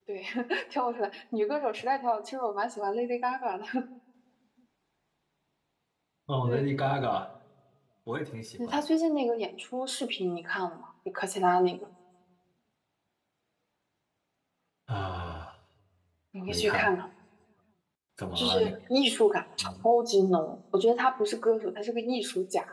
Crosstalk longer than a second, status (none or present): none